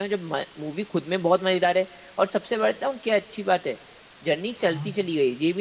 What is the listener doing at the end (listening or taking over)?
listening